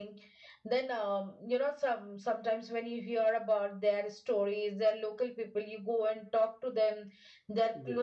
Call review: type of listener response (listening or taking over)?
listening